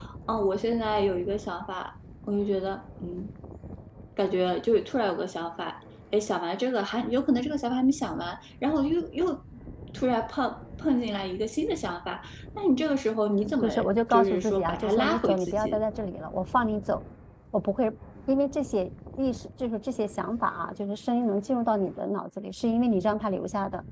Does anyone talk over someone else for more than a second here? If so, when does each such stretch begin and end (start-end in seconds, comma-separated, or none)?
14.1-15.8